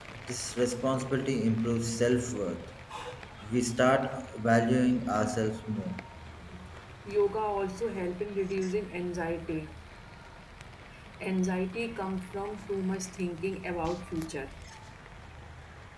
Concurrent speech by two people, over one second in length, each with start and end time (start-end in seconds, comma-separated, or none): none